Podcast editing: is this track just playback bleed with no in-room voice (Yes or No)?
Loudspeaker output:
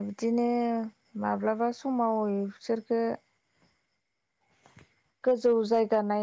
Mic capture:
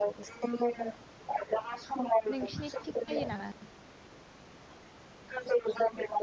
No